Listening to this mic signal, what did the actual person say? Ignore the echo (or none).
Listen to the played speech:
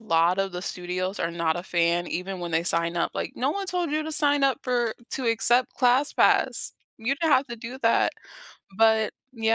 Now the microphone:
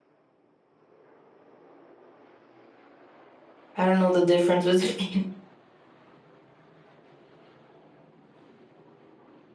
I don't know the difference between